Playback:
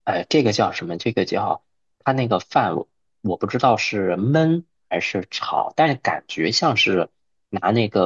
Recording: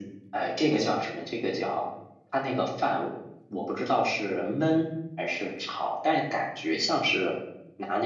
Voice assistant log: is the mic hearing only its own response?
Yes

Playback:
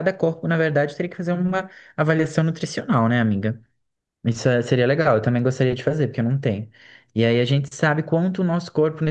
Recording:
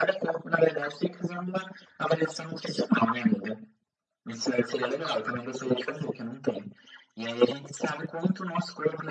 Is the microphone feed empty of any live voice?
Yes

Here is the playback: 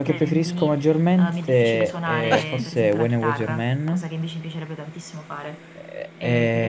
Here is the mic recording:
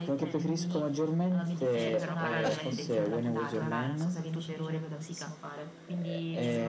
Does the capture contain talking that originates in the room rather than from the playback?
Yes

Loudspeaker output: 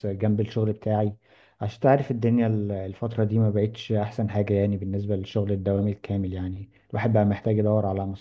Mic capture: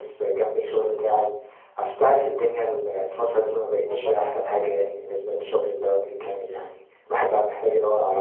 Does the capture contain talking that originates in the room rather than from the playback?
Yes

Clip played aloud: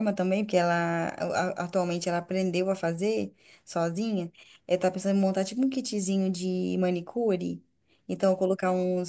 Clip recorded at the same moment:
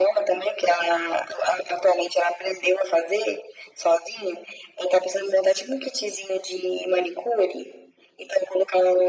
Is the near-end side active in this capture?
No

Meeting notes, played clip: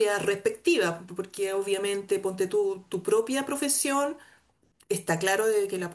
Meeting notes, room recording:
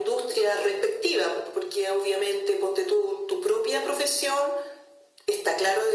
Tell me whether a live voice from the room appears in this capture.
No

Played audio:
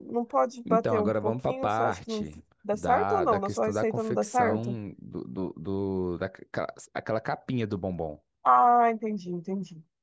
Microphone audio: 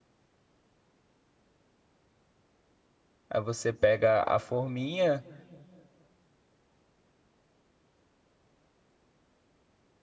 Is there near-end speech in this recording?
Yes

